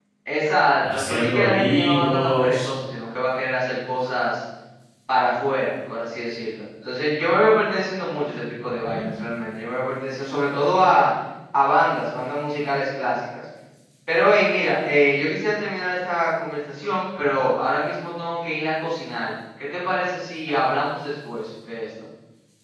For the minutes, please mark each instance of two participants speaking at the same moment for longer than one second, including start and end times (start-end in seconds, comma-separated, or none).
0.9-2.7